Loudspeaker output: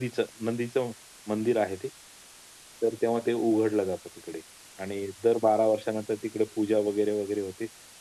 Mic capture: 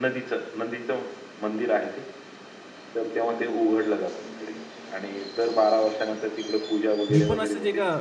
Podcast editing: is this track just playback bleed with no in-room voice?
No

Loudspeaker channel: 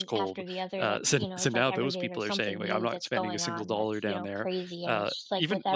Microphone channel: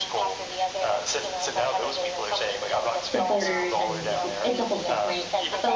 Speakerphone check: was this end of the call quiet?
No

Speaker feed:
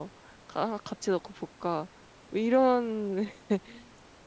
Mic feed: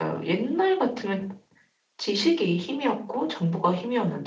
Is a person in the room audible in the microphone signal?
Yes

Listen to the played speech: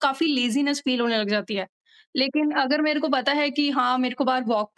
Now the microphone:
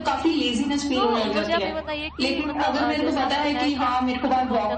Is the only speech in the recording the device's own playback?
No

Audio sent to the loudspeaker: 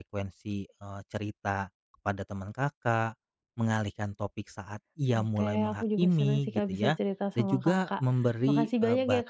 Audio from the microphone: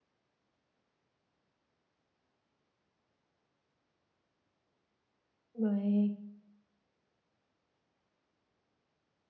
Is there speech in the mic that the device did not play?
Yes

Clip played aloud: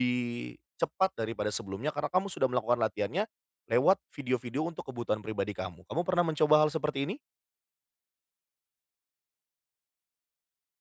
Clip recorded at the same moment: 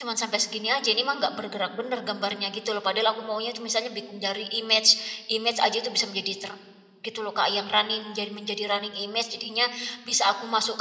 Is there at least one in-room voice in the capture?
Yes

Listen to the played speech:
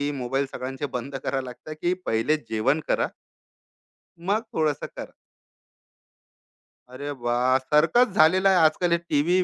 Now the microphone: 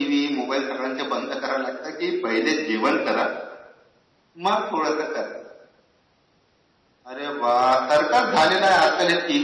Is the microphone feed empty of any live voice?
Yes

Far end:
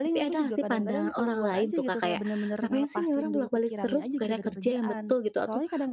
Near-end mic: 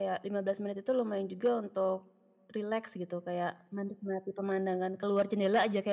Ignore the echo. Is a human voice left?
Yes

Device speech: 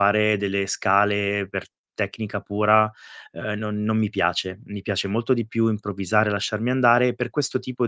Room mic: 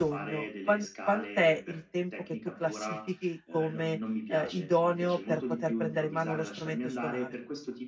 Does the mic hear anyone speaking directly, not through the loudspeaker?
Yes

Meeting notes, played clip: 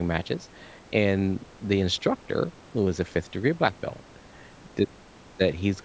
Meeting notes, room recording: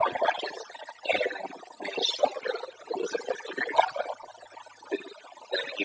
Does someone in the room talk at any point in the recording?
No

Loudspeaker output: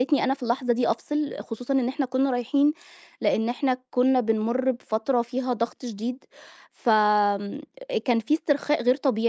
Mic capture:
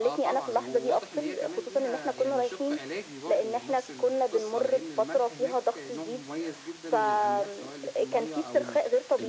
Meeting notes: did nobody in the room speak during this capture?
No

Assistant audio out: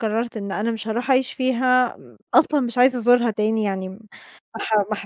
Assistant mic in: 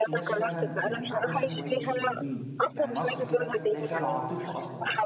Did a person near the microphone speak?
Yes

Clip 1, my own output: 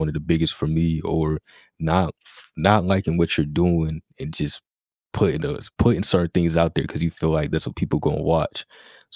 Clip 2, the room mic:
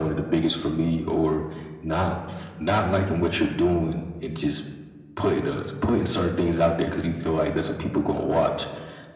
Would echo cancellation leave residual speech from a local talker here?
No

